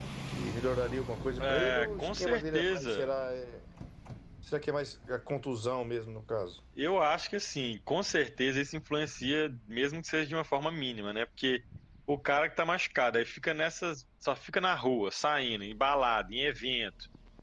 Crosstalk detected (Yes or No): Yes